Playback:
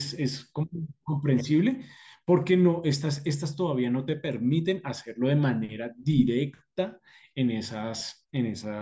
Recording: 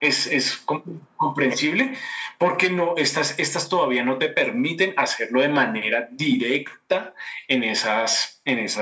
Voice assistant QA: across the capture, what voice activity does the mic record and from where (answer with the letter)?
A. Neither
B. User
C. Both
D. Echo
D